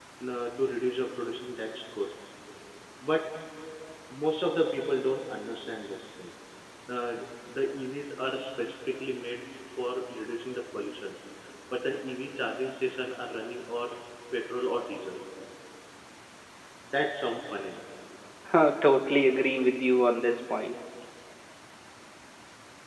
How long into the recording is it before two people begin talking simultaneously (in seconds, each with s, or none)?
none